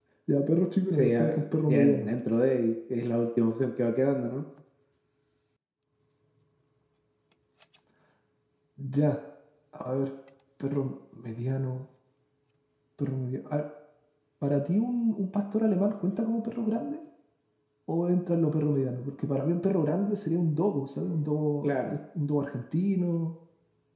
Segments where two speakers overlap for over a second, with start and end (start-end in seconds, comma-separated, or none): 0.9-2.1